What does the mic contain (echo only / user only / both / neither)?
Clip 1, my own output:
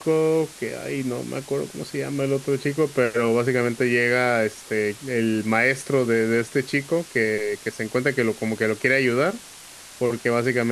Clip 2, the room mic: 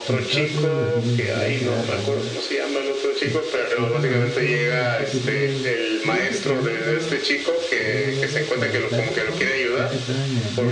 both